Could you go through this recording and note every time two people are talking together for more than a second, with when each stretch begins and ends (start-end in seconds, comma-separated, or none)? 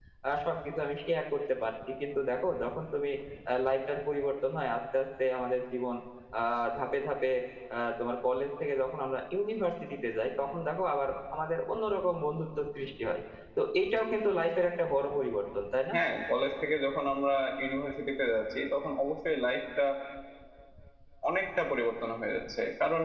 none